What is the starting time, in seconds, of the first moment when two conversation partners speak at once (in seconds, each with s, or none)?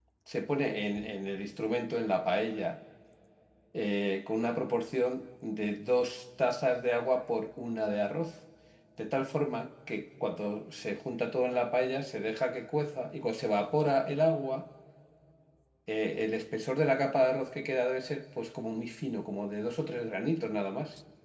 none